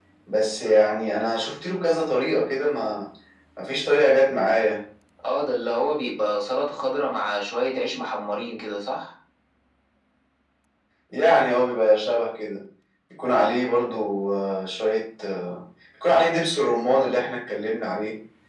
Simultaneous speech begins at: none

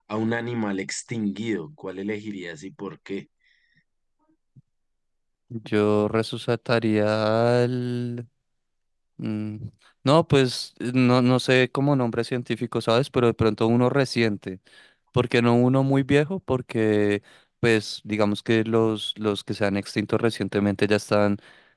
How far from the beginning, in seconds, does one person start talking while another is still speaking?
none

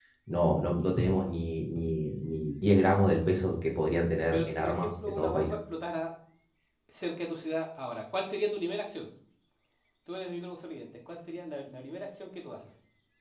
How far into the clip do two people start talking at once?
4 s

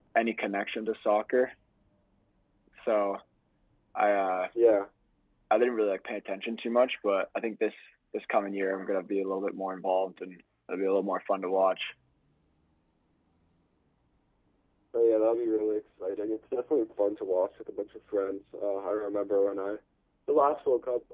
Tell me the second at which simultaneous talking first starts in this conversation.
none

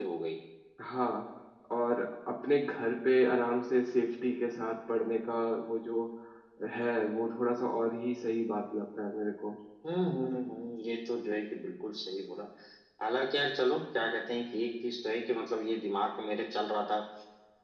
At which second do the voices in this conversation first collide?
none

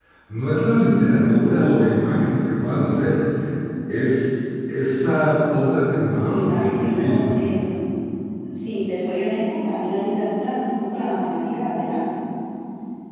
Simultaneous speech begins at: 6 s

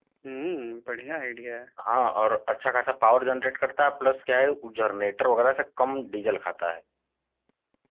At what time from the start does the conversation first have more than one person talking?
none

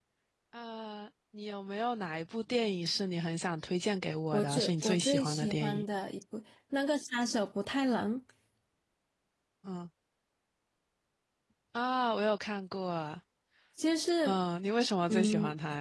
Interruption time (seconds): 4 s

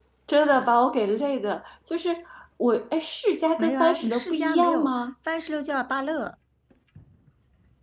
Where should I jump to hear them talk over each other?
4 s

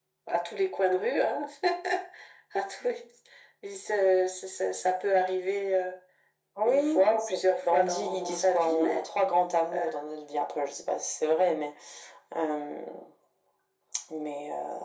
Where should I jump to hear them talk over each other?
7 s

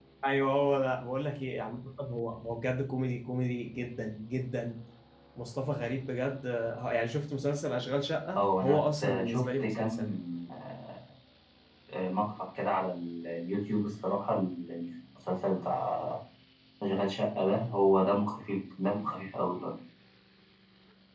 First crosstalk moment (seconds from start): 8 s

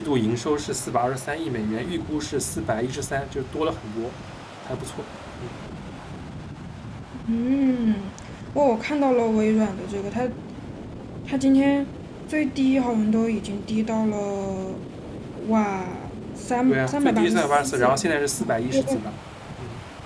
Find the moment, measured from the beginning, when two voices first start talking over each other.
17 s

